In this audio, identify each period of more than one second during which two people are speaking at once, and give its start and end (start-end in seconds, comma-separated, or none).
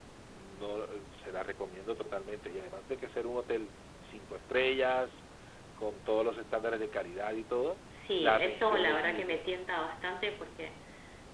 8.2-9.4